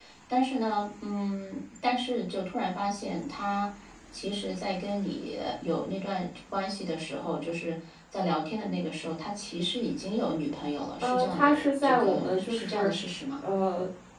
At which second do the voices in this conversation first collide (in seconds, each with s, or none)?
11.0 s